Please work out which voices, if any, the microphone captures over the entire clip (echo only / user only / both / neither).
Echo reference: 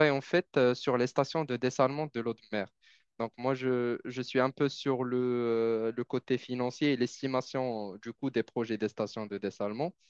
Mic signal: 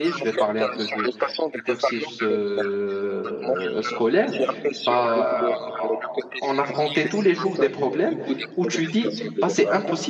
both